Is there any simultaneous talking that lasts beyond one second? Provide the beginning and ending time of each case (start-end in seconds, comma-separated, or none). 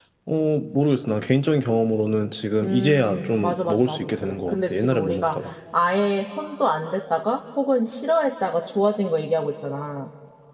2.6-5.3